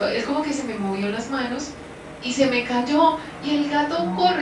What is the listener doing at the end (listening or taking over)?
listening